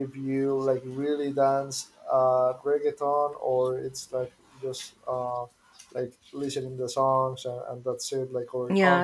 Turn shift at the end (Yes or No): Yes